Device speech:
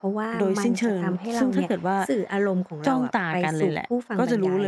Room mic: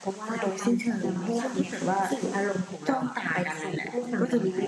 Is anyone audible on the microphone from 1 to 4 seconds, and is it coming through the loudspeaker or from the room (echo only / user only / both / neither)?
echo only